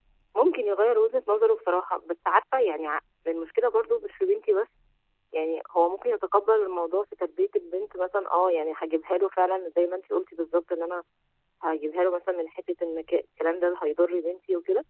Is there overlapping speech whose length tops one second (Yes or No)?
No